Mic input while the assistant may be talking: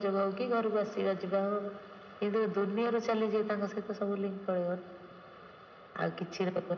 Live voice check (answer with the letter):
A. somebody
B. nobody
B